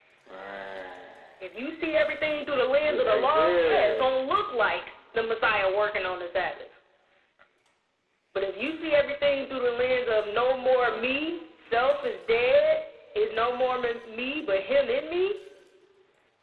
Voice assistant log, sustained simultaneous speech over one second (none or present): present